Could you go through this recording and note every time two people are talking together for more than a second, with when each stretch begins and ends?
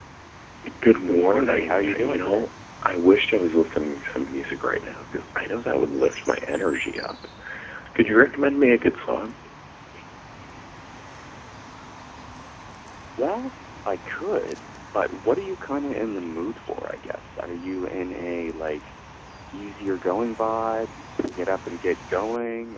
1.1-2.5

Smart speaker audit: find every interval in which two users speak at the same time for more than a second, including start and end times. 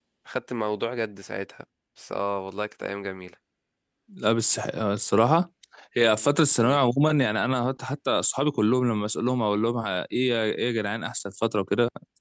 none

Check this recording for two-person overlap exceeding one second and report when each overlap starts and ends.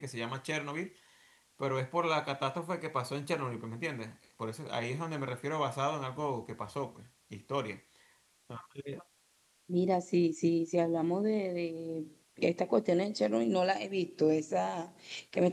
none

